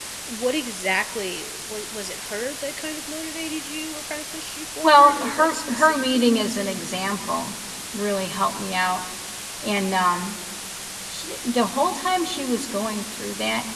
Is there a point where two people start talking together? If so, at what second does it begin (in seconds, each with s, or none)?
4.8 s